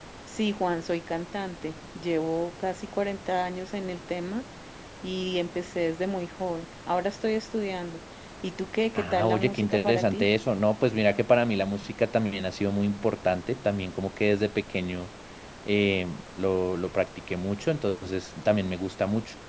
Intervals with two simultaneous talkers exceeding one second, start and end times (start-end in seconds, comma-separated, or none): 8.9-10.3